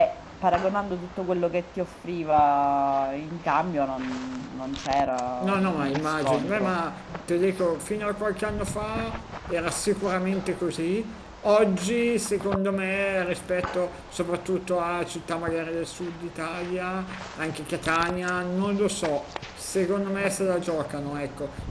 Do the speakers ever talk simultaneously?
Yes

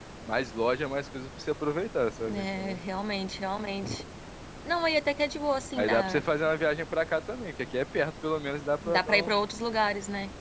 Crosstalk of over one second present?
No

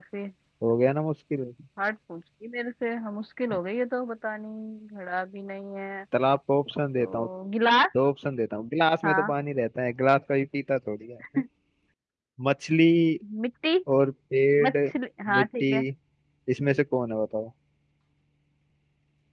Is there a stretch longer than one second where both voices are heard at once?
No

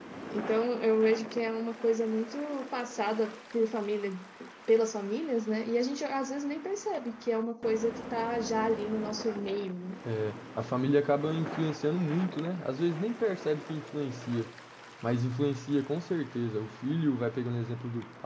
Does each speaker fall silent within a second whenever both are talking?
Yes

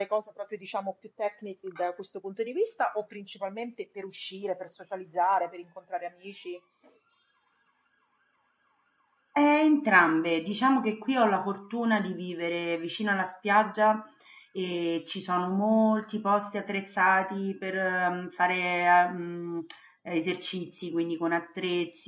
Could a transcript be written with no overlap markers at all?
Yes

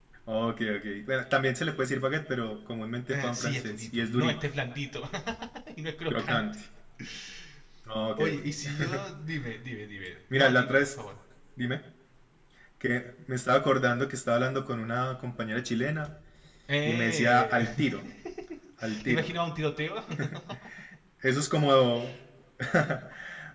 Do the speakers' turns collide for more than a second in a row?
Yes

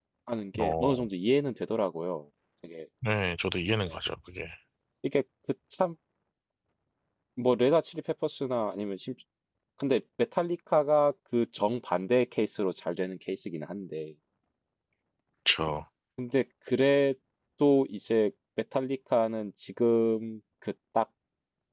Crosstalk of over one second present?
No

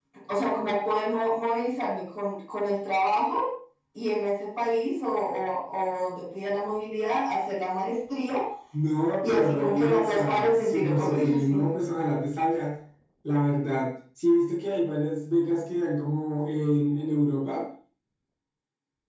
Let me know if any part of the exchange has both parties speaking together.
Yes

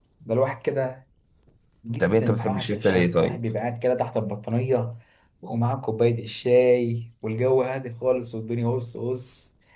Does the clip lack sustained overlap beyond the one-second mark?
No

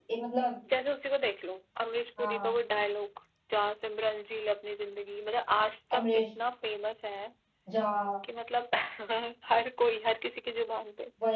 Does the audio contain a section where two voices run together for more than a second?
No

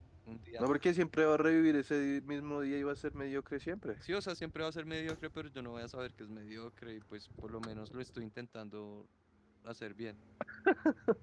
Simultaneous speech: No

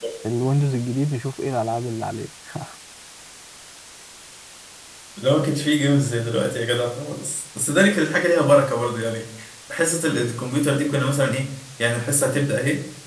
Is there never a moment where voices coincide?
Yes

